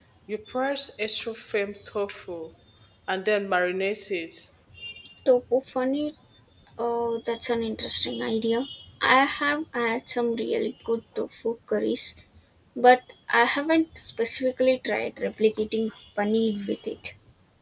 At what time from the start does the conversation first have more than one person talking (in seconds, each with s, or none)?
none